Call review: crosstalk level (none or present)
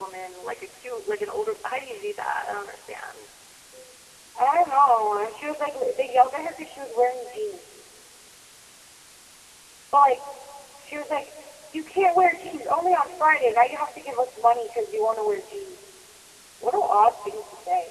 none